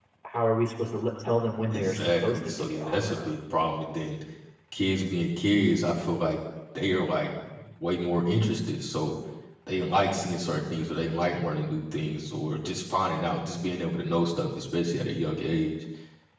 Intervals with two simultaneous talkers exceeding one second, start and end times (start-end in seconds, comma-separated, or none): 1.7-3.3